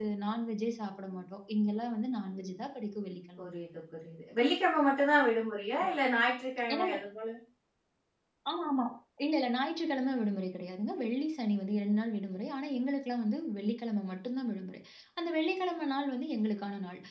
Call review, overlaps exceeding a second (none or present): none